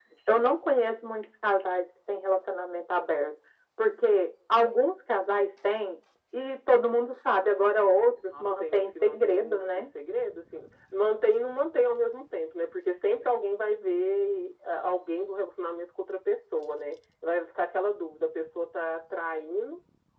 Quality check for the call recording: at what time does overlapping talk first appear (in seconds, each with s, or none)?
8.3 s